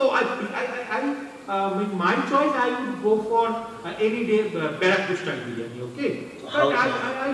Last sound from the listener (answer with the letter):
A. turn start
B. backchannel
B